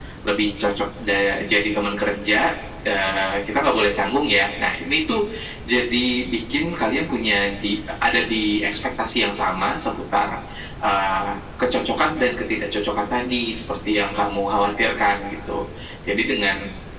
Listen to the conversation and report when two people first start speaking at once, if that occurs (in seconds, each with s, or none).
none